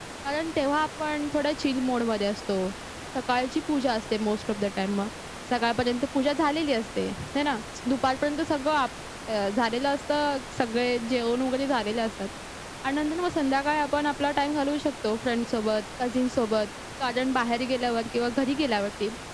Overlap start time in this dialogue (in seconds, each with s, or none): none